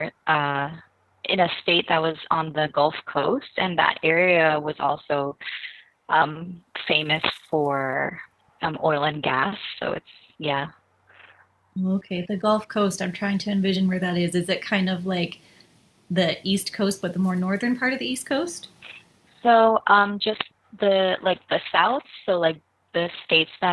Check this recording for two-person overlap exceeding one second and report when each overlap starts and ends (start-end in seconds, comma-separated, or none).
none